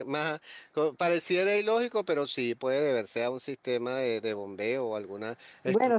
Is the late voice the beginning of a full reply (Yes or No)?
Yes